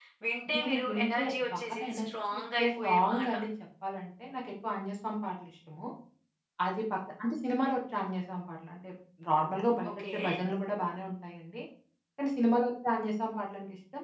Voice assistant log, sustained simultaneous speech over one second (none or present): present